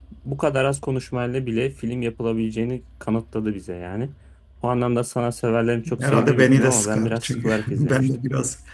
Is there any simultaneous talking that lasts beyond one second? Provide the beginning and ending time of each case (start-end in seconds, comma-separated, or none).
6.0-8.1